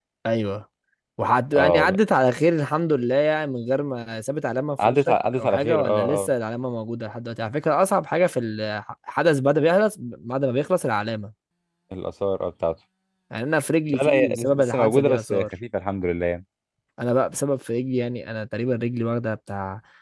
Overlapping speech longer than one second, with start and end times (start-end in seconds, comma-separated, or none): 4.9-6.3, 13.9-15.4